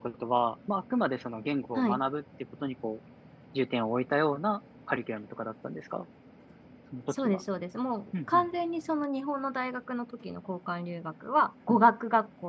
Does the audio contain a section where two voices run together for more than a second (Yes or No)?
No